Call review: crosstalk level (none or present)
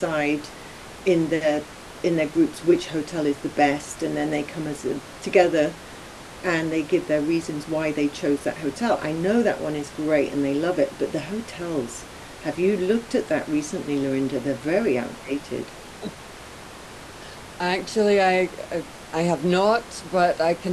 none